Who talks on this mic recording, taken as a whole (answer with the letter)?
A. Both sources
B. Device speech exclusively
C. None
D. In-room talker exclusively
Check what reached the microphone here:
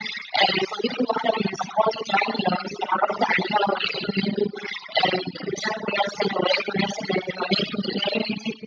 B